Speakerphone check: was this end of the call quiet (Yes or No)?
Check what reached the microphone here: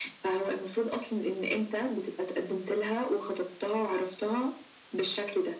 Yes